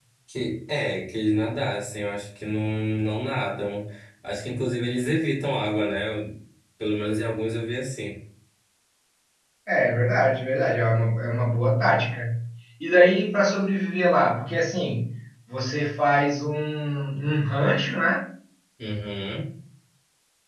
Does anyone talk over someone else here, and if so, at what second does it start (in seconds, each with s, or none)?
none